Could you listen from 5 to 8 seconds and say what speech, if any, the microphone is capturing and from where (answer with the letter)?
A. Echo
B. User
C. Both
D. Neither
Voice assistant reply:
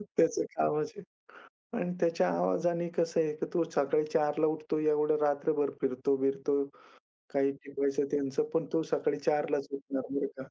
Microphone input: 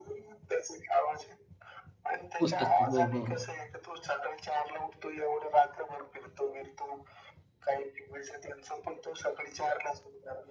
A